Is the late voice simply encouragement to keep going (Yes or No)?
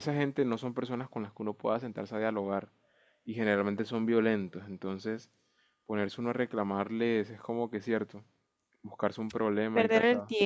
No